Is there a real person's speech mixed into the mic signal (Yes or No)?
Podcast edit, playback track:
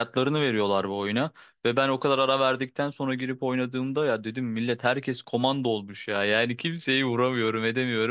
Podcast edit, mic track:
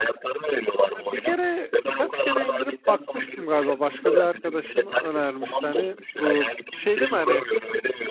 Yes